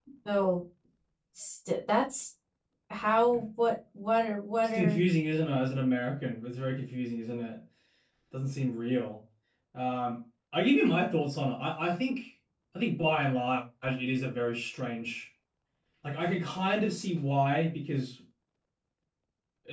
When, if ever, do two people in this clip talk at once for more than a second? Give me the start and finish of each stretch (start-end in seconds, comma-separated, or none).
none